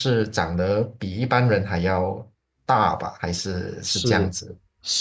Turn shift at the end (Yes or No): Yes